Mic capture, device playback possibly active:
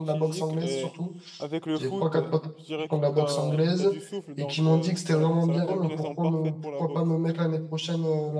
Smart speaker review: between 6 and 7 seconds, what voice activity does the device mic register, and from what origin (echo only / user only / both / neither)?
both